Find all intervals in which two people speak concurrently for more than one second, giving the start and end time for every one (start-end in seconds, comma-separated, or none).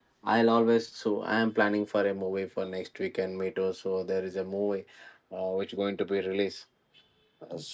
none